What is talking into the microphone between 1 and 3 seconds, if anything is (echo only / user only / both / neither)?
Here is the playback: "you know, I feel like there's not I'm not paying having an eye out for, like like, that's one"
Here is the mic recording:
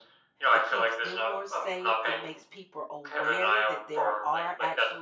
both